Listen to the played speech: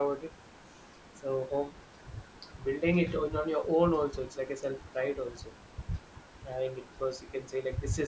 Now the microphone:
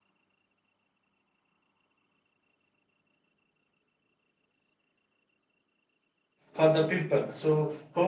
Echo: none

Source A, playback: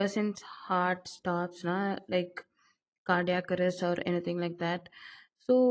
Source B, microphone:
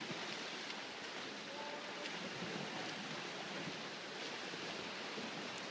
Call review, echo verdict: none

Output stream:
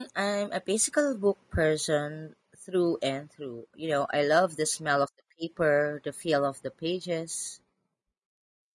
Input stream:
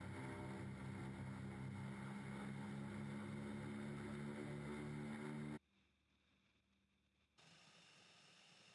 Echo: none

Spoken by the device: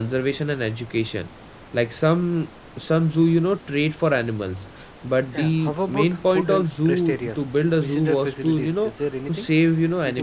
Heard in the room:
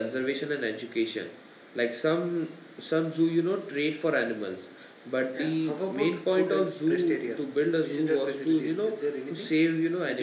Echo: present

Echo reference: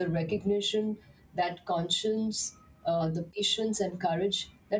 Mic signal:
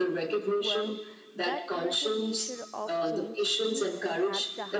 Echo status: present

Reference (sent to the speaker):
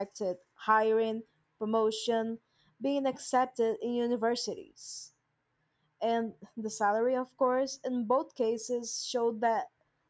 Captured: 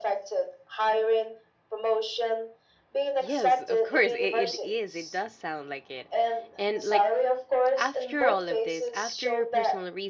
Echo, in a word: present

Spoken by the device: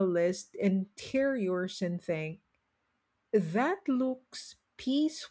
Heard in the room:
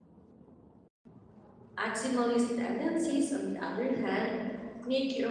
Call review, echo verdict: none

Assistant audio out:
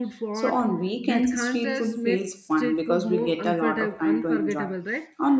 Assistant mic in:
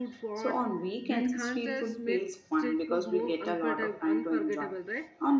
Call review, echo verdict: present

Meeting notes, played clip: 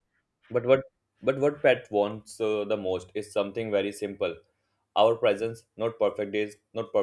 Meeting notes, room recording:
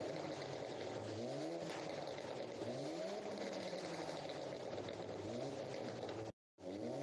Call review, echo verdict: none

